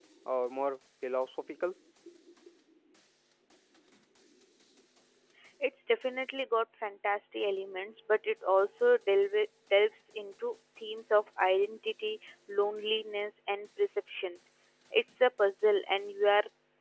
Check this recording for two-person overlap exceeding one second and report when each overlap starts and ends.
none

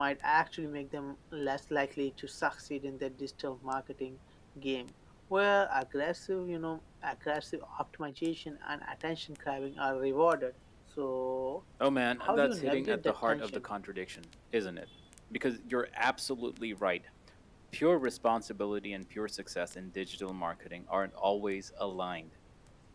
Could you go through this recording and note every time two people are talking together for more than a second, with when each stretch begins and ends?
12.2-13.7

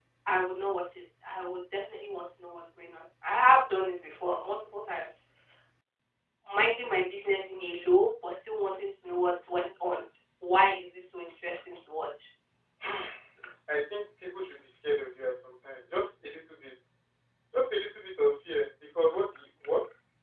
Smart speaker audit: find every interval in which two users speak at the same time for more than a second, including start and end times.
none

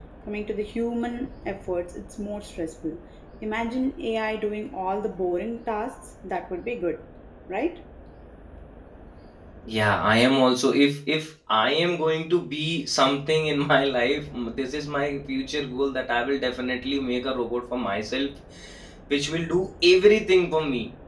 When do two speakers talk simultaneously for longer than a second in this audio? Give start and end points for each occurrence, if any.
none

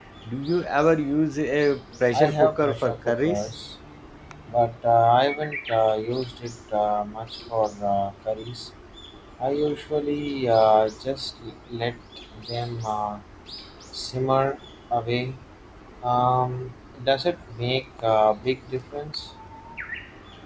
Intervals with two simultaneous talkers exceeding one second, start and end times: 2.1-3.5

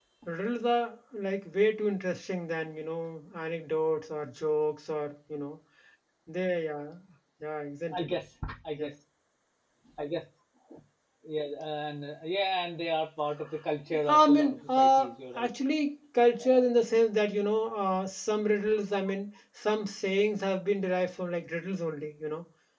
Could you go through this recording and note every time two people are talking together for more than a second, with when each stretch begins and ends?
14.1-15.5

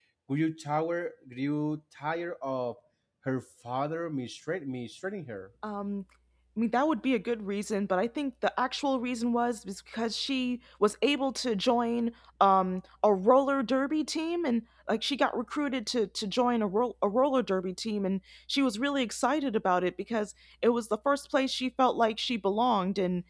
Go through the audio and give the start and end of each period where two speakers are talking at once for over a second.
none

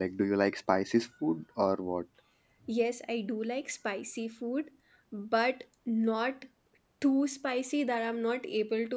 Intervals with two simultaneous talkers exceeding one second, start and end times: none

